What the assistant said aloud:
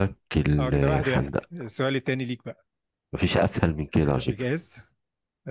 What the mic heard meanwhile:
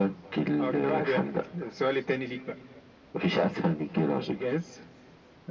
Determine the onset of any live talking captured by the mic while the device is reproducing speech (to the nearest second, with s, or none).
none